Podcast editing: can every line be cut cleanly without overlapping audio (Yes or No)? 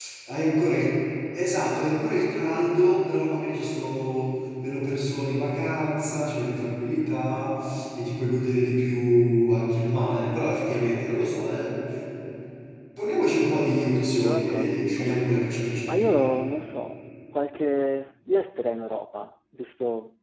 No